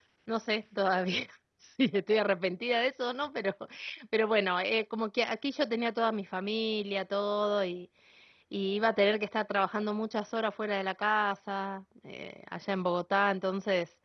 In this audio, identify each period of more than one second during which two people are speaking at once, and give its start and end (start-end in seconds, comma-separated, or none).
none